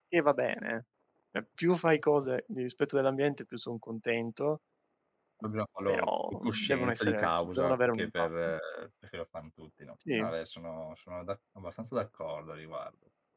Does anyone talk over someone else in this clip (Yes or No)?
Yes